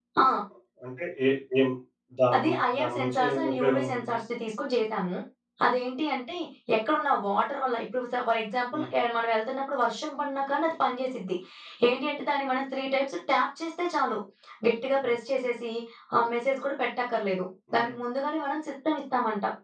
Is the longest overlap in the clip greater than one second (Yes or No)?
Yes